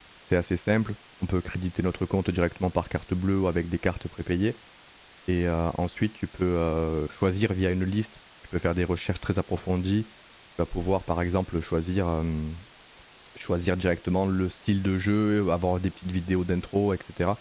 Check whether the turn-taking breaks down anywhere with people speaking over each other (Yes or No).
No